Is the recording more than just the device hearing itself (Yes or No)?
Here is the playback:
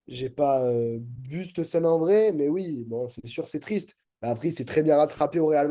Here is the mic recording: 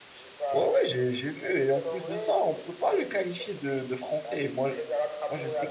Yes